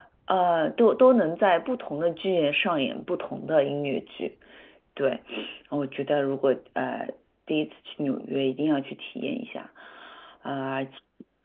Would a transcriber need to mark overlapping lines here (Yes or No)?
No